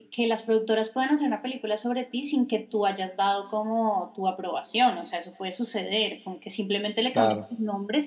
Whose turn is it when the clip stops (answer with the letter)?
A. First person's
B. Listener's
A